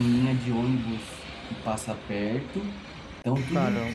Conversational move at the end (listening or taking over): listening